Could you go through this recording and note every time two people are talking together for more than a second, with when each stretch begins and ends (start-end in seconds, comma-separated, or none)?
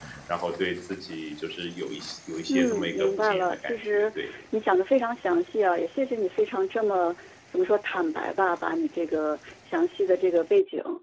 2.5-4.0